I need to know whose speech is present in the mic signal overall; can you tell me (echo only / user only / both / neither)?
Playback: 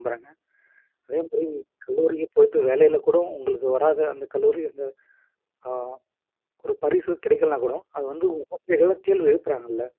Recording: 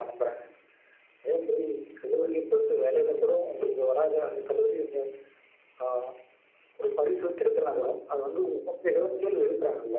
echo only